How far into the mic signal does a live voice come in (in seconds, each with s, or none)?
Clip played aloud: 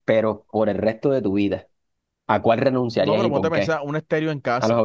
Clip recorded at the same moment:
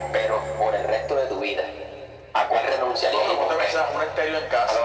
none